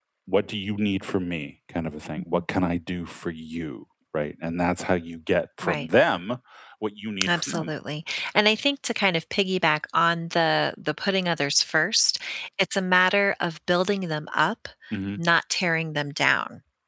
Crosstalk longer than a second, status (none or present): none